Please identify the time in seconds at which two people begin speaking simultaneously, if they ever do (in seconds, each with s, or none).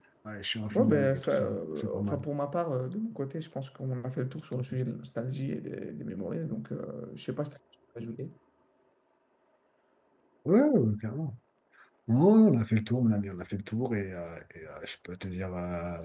0.7 s